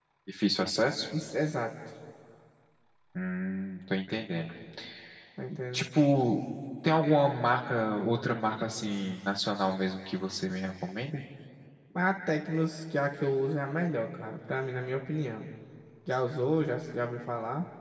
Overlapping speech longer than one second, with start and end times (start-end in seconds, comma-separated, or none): none